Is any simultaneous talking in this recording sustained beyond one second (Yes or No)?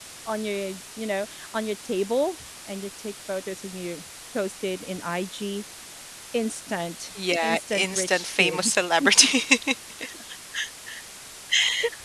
Yes